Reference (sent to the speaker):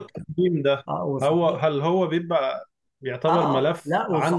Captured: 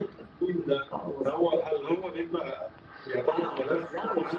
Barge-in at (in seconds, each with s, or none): none